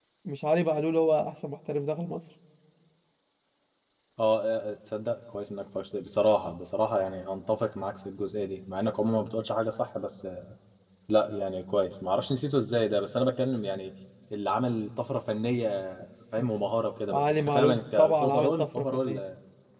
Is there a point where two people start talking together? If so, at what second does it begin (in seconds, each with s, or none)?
17.1 s